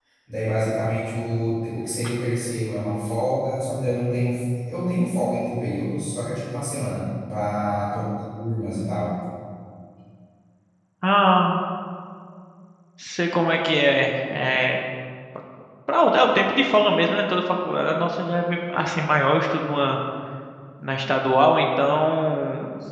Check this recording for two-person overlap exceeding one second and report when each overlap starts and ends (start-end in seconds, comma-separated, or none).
none